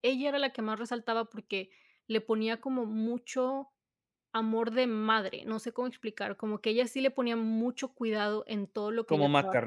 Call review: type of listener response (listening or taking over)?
listening